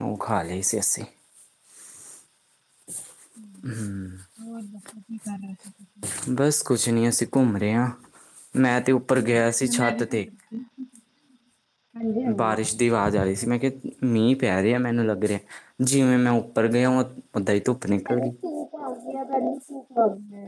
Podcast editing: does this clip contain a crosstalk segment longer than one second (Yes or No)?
No